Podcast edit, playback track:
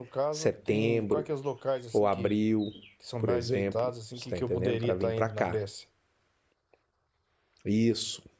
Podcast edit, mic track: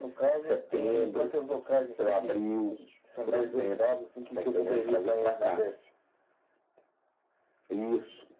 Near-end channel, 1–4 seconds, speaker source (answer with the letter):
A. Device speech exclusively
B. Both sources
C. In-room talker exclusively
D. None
A